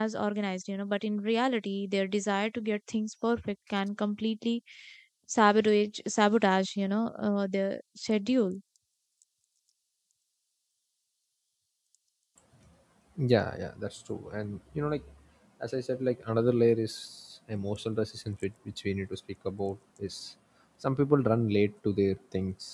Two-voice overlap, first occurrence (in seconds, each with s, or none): none